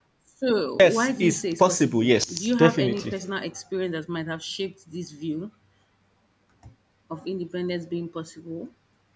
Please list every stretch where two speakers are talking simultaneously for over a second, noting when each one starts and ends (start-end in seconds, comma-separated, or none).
0.8-3.1